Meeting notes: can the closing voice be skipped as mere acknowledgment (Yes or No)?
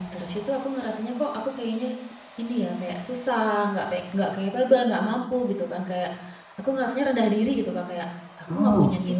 Yes